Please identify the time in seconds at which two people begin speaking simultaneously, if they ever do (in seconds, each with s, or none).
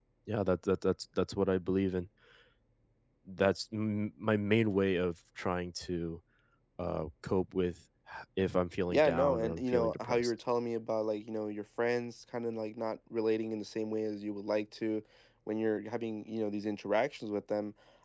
8.9 s